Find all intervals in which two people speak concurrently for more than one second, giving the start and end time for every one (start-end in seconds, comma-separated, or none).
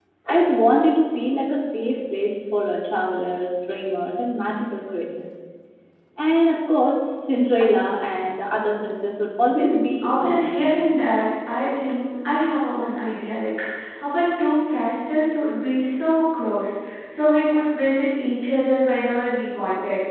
9.5-10.7